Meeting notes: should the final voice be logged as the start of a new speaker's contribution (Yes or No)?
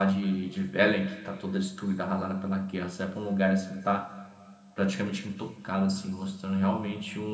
No